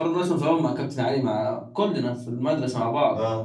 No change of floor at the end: Yes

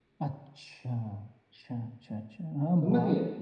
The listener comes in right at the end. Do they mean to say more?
Yes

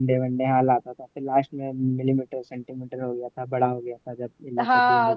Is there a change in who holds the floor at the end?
Yes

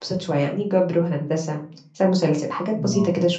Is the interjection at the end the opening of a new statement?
Yes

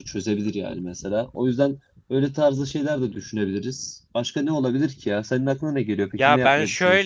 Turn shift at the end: Yes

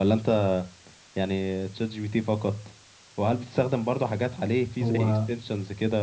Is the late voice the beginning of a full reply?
No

